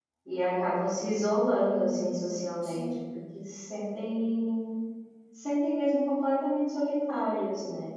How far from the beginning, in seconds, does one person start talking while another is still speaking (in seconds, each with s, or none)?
1.5 s